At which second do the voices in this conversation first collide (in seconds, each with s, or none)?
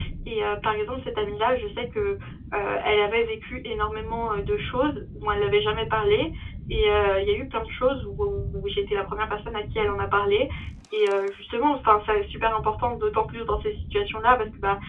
none